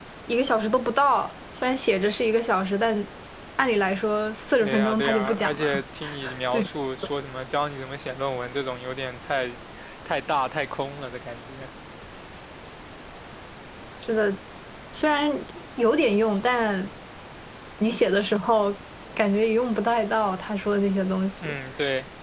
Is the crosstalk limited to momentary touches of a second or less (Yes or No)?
No